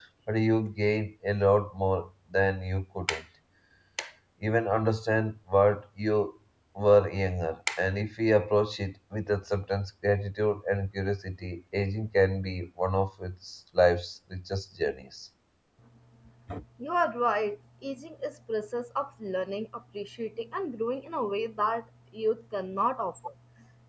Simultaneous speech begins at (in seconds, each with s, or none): none